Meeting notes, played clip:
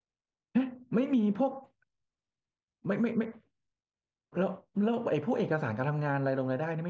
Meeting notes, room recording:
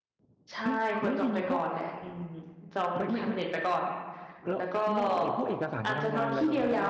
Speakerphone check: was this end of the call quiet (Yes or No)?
No